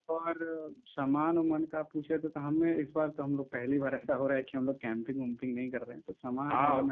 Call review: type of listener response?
taking over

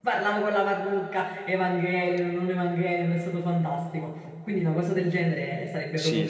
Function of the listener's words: taking over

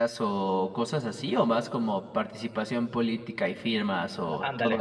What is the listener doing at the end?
taking over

